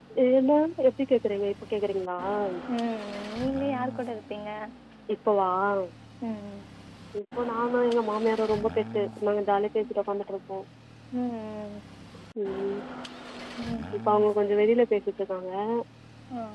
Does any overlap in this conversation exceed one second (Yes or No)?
No